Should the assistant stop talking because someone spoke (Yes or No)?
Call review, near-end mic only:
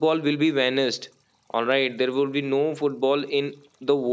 Yes